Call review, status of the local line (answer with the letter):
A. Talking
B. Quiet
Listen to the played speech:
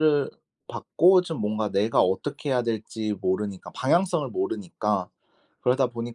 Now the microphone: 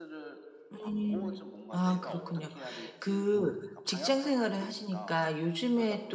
A